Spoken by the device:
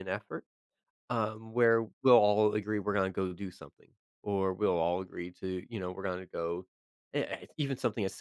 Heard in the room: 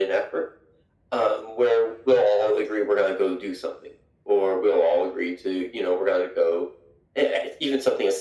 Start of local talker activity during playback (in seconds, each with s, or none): none